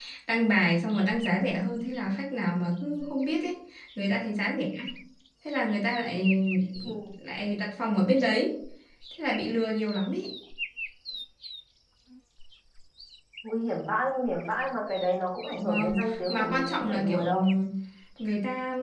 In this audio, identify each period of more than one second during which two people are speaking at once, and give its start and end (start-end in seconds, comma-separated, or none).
15.6-17.2